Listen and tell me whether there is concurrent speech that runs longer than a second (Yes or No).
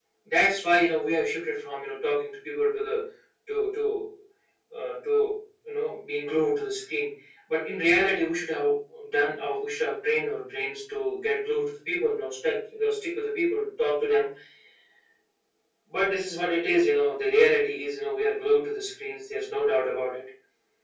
No